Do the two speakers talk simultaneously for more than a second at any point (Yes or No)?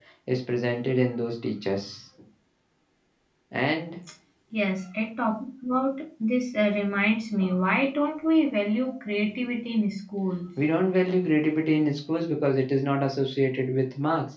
No